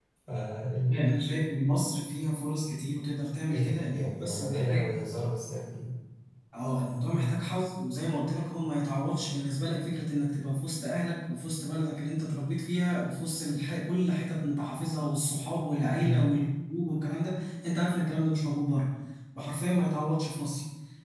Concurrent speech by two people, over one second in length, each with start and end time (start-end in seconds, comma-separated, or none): 3.5-4.9